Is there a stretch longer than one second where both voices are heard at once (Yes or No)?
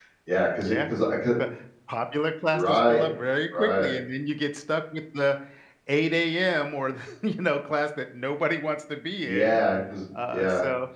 No